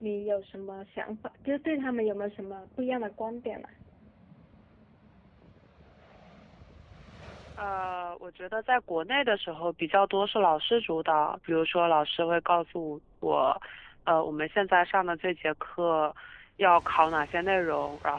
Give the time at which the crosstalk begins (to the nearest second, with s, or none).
none